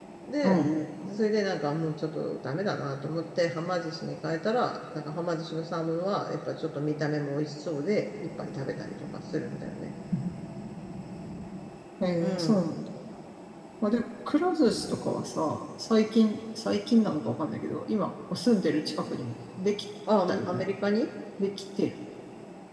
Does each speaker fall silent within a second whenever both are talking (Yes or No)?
Yes